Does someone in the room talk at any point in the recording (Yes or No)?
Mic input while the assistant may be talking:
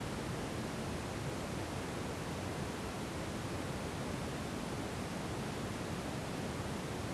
No